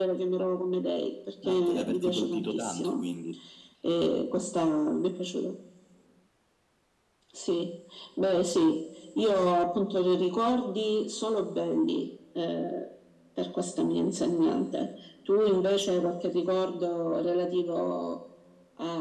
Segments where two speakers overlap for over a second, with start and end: 1.4-3.0

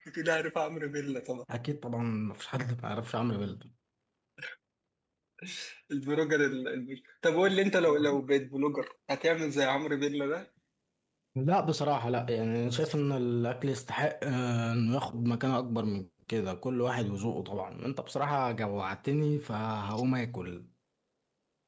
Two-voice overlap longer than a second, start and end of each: none

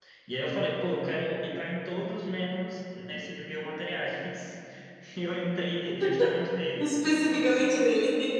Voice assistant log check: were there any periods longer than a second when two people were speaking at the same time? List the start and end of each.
none

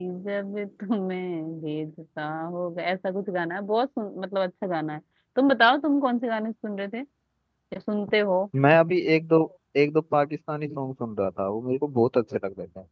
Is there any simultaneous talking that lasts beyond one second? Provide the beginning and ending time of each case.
none

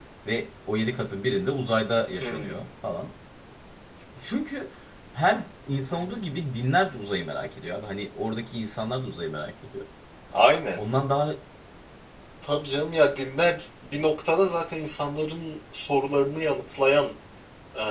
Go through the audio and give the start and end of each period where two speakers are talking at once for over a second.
none

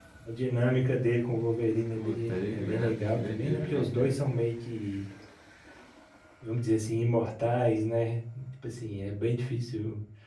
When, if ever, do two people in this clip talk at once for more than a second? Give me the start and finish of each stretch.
2.0-4.2

